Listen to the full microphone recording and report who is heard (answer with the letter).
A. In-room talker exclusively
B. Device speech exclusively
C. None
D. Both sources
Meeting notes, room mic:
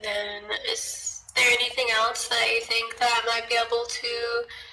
B